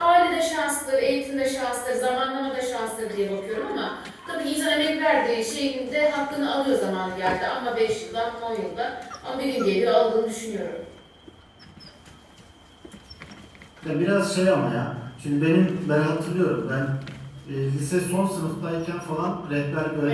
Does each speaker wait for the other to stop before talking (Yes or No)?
Yes